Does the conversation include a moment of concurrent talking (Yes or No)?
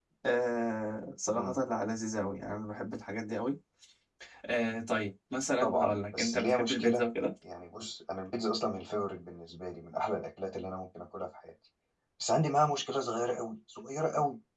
Yes